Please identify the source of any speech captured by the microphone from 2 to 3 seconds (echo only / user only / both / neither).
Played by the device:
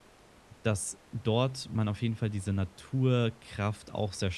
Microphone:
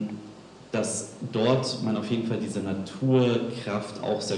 echo only